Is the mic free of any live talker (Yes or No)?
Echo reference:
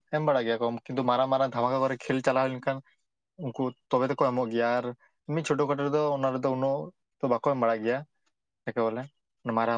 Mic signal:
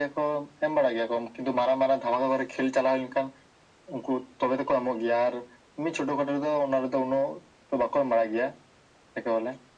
Yes